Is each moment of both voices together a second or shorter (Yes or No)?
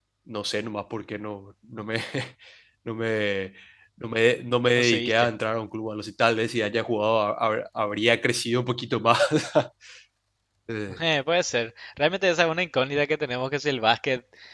Yes